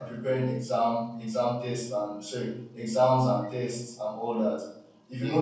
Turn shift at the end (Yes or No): No